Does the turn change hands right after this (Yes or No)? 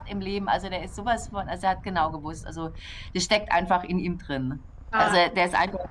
No